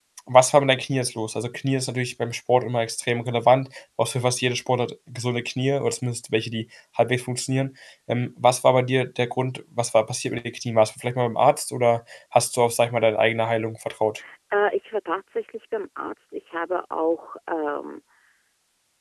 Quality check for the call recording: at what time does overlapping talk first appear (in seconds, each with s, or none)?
none